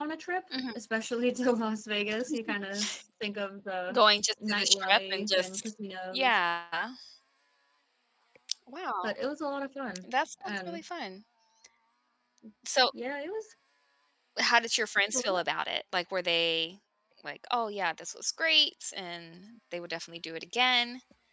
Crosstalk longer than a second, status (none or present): present